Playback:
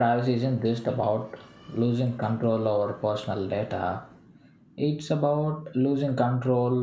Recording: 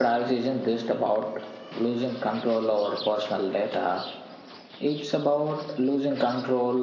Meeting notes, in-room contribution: none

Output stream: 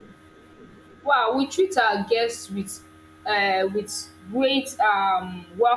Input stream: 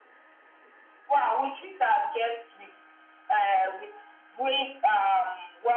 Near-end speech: none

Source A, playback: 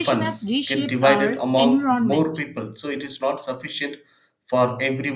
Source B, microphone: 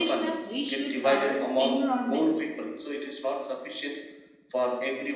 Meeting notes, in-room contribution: none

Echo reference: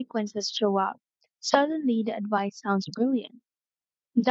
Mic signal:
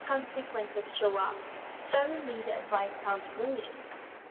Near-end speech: none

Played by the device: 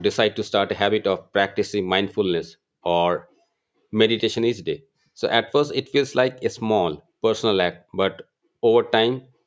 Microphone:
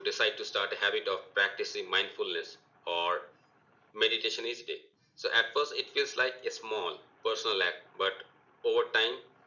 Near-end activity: none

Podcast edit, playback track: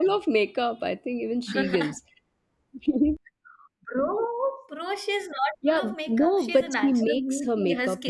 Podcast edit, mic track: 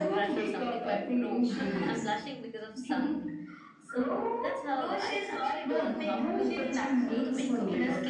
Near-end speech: present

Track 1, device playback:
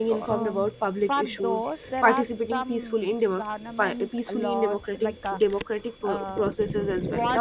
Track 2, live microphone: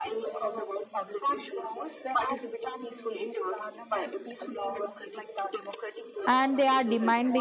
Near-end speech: present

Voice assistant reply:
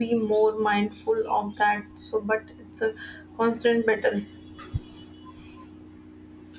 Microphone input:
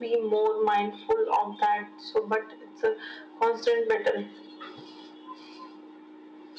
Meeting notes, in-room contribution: none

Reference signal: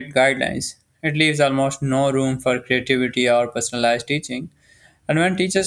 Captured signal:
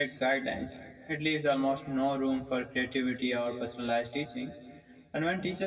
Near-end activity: none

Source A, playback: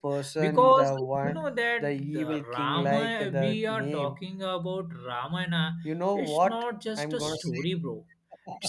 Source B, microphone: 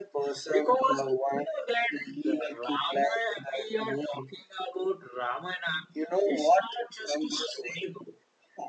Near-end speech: none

